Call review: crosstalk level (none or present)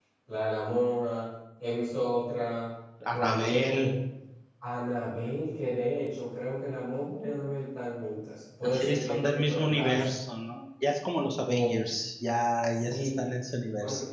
present